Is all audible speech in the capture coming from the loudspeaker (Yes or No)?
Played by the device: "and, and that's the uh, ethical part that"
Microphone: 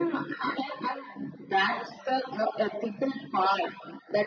Yes